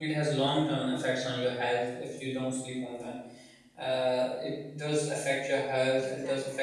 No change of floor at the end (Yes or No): Yes